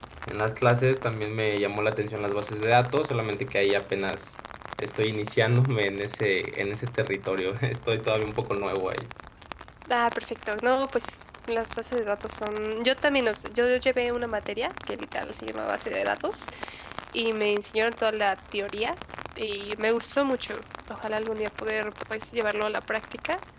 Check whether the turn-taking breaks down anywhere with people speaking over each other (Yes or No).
No